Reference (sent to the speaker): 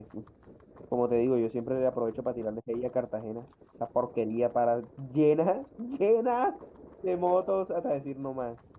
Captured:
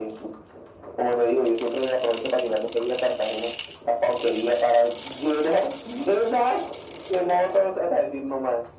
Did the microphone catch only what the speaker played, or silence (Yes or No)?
Yes